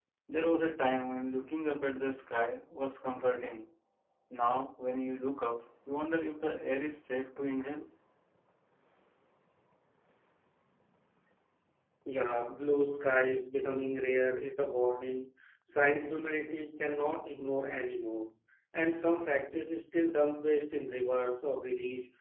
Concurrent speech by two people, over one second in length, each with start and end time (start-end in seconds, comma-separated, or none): none